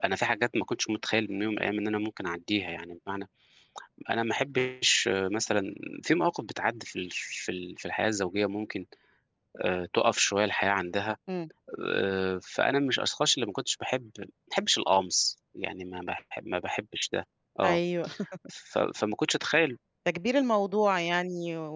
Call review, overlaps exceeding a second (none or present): none